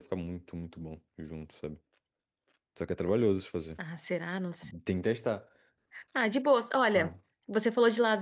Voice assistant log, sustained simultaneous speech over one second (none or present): none